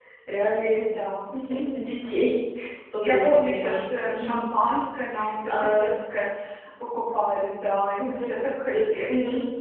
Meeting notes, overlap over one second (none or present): present